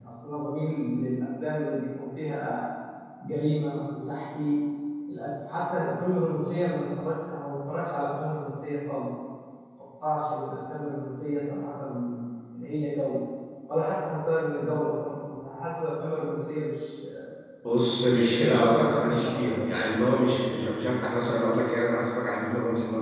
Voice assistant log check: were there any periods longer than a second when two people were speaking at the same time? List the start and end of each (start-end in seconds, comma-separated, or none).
18.0-19.7